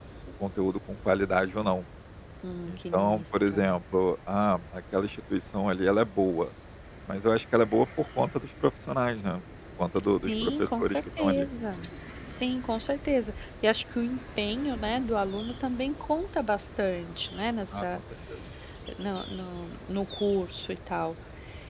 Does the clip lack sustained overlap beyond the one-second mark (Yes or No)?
No